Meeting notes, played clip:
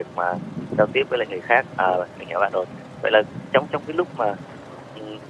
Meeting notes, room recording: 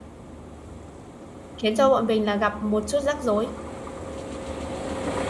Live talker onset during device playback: 1.6 s

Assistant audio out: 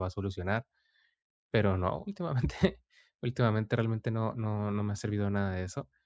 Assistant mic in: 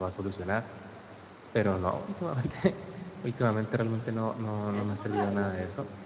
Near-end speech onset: 4.7 s

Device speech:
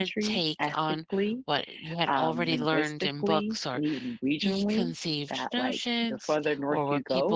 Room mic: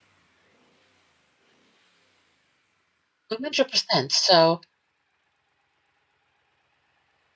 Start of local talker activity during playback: 3.3 s

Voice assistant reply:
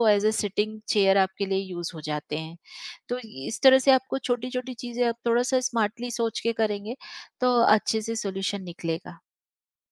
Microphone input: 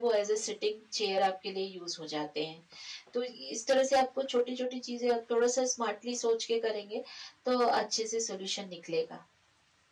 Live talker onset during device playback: none

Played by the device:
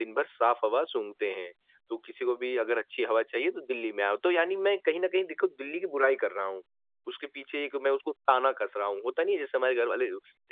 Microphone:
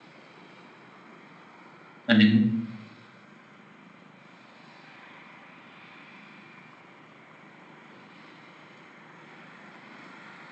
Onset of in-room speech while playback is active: 2.1 s

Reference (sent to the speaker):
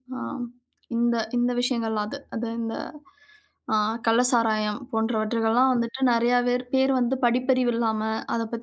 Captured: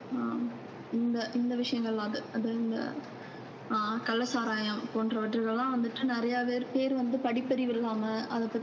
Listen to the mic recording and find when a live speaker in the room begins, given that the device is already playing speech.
none

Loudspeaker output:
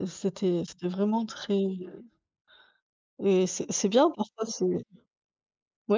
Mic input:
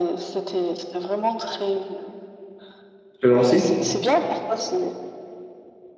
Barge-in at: 3.2 s

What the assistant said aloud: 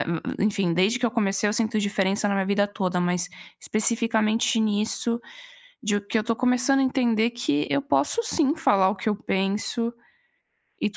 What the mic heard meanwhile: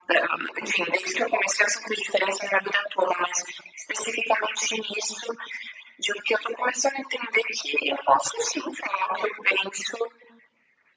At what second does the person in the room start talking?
none

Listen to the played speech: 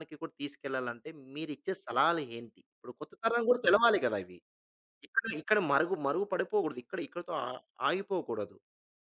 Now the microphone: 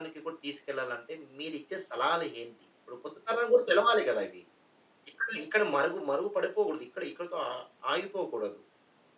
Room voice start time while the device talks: none

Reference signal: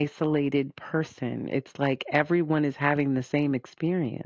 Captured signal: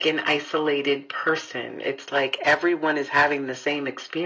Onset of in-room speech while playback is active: none

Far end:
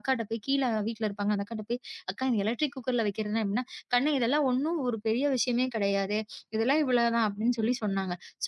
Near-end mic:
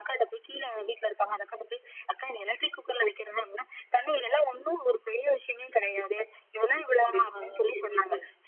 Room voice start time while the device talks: 7.0 s

